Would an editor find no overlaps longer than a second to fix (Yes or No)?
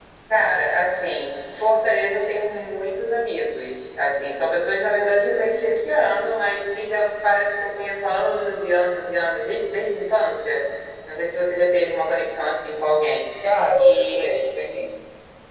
Yes